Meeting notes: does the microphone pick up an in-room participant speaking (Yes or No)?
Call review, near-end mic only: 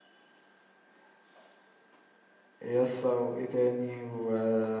Yes